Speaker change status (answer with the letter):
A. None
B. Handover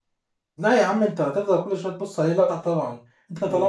A